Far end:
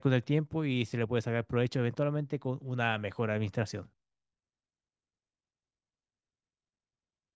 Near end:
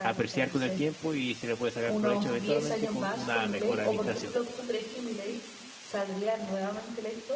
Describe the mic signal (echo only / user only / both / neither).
both